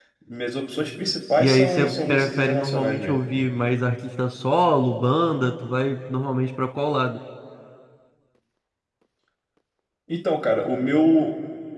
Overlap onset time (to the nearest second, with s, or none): 1 s